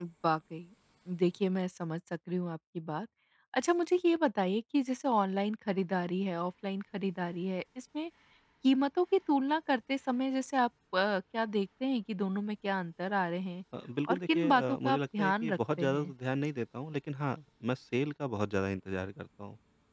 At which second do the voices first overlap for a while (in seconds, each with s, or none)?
14.1 s